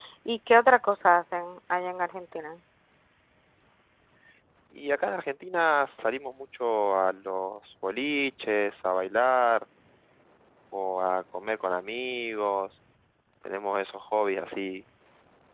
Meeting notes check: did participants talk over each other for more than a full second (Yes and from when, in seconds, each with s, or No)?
No